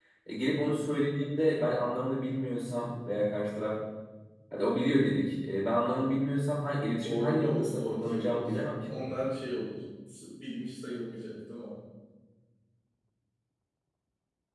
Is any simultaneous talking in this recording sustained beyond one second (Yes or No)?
Yes